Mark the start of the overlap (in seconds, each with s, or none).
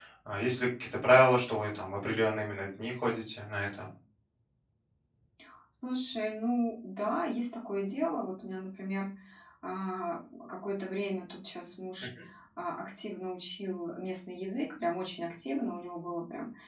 none